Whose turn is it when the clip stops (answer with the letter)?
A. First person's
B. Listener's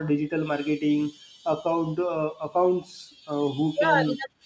B